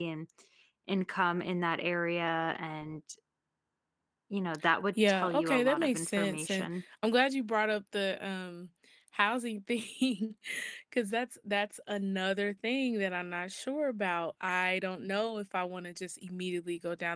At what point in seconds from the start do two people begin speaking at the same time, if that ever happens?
5.1 s

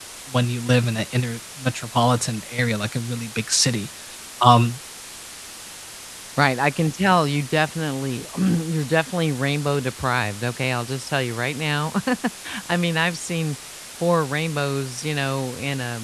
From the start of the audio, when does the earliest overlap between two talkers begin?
none

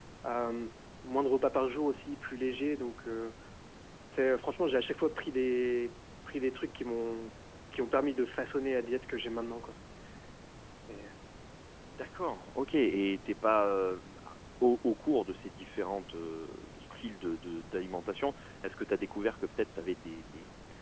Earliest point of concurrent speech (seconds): none

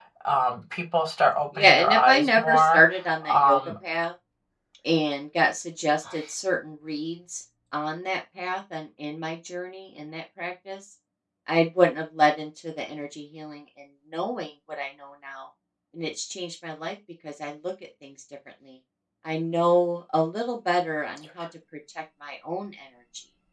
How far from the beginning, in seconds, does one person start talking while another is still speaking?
1.6 s

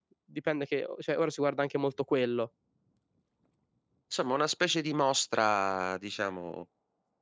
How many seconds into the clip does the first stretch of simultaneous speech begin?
none

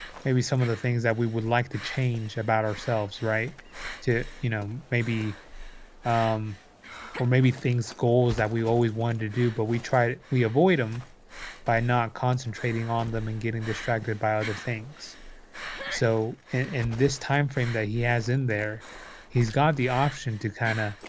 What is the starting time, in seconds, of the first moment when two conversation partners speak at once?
none

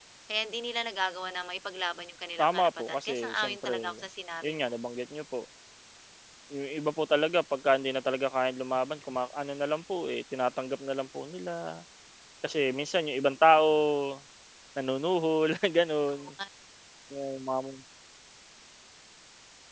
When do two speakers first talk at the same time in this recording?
2.4 s

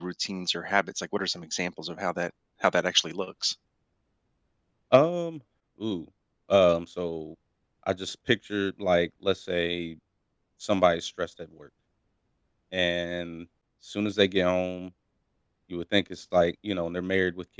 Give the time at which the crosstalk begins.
none

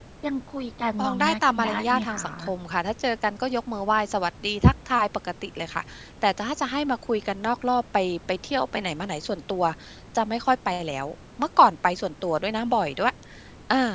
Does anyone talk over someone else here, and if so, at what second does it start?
1.0 s

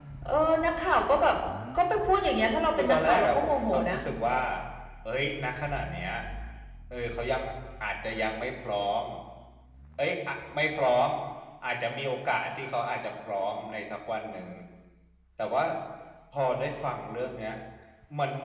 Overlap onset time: 2.8 s

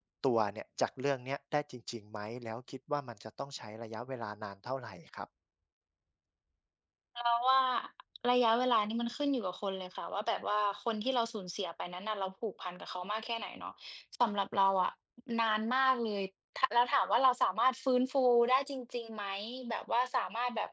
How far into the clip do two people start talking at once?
none

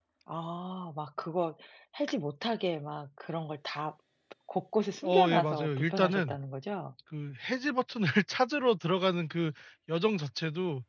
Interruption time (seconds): 5.0 s

